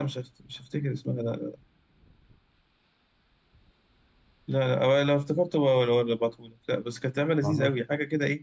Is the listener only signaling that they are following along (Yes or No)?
Yes